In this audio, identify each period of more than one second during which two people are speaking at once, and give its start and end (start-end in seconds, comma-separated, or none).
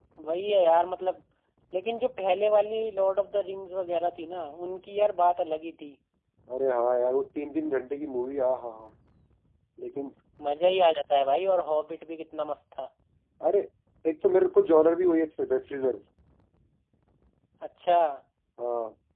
none